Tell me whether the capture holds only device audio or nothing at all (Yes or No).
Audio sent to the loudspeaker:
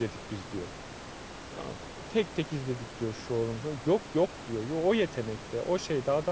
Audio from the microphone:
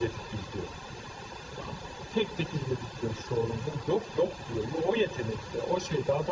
Yes